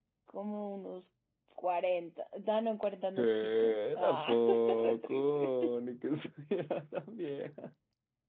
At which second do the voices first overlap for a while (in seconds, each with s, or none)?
3.2 s